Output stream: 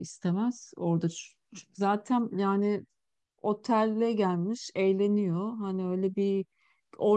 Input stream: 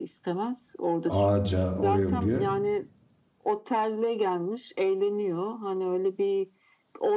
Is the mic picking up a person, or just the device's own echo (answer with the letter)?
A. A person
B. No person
A